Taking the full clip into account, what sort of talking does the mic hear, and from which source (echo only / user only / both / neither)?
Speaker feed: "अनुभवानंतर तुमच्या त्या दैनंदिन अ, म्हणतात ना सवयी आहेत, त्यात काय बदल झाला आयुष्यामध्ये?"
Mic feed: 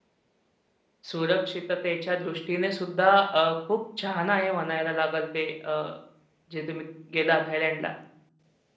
user only